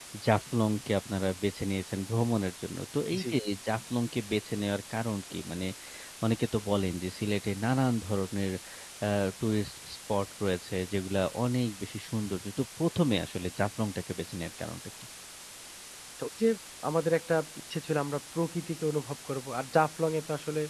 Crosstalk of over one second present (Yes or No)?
No